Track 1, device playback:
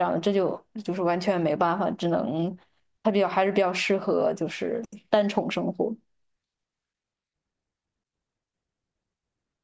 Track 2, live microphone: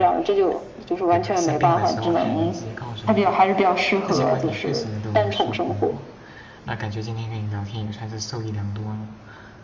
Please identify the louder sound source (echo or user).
echo